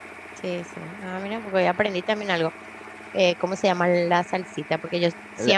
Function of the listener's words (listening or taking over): listening